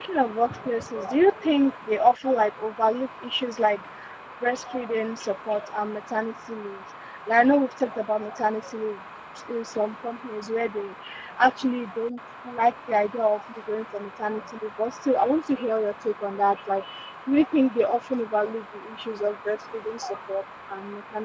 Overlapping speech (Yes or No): No